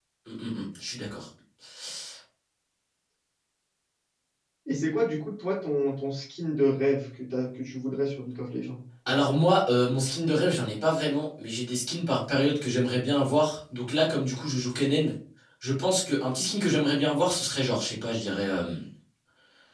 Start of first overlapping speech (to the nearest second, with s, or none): none